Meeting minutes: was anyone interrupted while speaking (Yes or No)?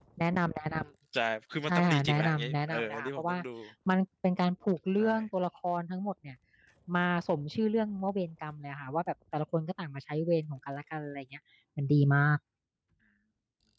Yes